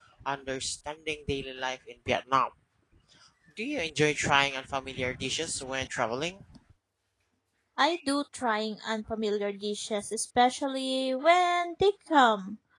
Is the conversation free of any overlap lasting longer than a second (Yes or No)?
Yes